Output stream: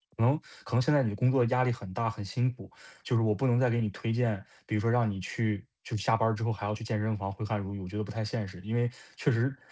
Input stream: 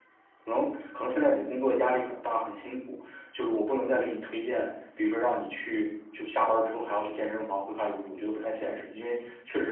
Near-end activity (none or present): none